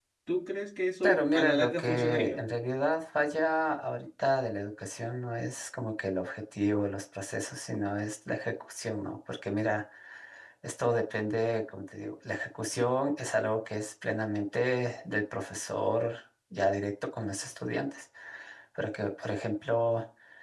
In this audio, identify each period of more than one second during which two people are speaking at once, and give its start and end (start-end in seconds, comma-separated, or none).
1.0-2.4